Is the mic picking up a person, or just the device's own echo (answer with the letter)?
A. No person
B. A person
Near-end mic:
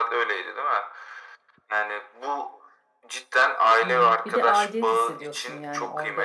B